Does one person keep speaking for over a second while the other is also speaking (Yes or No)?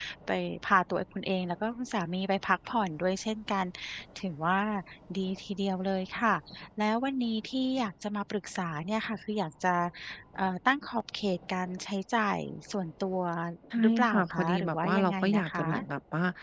Yes